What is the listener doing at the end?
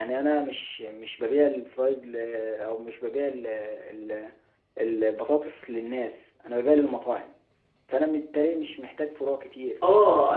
taking over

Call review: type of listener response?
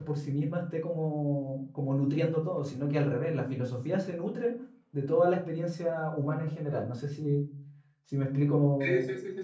taking over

